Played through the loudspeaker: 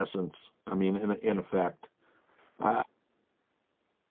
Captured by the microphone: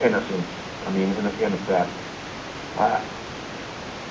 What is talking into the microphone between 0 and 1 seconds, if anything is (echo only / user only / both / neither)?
echo only